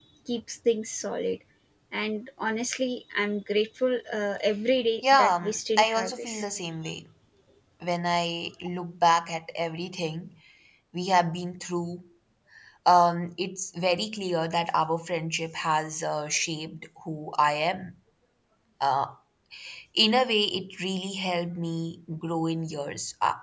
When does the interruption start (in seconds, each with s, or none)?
5.0 s